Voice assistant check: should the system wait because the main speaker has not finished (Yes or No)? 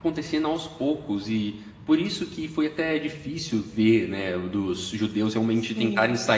Yes